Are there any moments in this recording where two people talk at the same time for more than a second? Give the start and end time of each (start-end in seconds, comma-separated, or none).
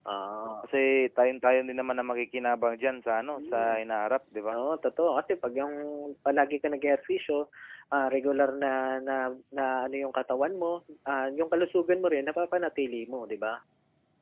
none